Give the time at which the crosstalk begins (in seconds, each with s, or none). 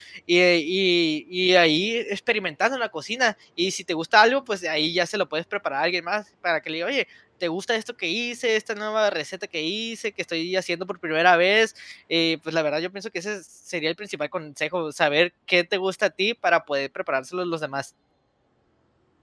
none